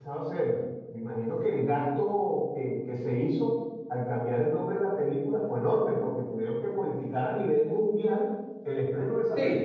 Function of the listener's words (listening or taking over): taking over